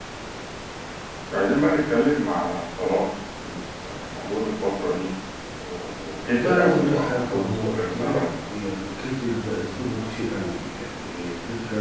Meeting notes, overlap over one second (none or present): present